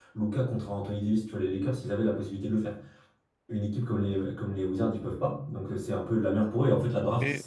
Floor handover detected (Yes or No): No